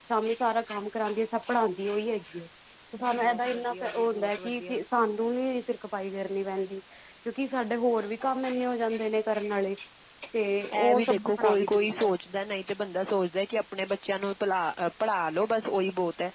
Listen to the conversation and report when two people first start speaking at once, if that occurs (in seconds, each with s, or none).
3.2 s